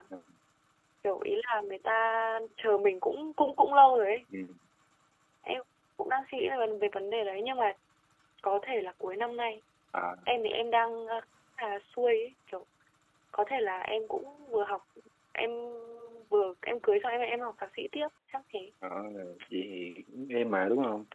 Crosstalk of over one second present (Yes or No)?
No